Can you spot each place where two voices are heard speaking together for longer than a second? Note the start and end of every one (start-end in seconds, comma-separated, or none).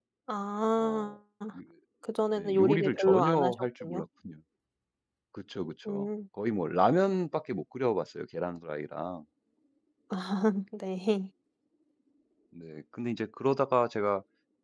2.4-4.0